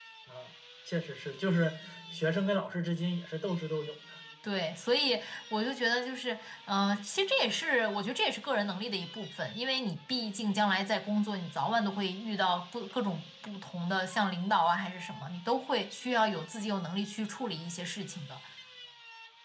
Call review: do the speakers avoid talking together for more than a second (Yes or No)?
Yes